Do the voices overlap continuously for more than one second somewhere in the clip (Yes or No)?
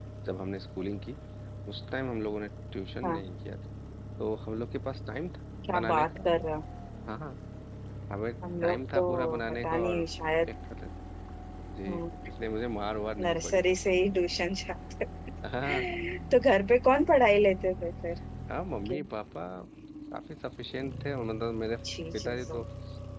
Yes